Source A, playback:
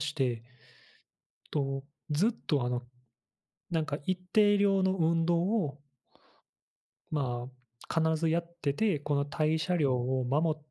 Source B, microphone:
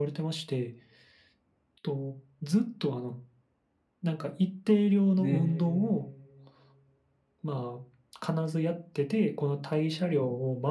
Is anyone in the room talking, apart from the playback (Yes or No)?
Yes